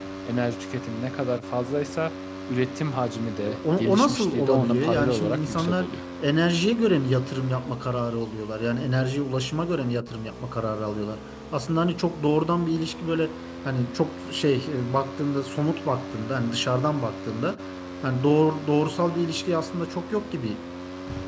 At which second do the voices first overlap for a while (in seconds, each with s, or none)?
3.4 s